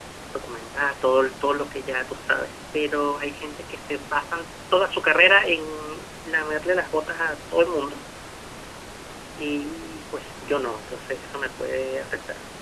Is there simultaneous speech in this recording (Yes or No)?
No